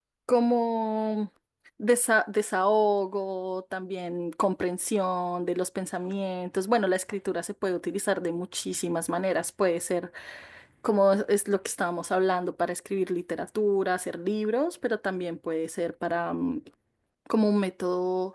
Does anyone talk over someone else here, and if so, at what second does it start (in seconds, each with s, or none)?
none